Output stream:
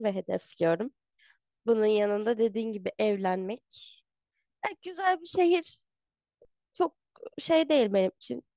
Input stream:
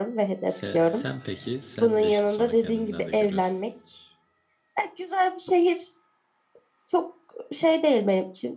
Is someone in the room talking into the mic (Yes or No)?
Yes